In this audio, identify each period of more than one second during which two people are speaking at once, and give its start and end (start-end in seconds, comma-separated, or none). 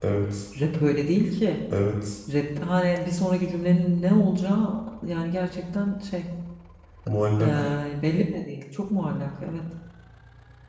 none